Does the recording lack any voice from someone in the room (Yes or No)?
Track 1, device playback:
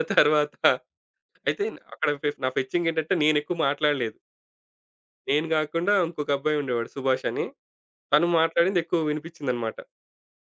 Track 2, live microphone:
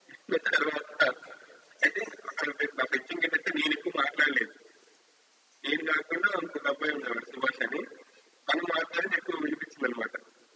Yes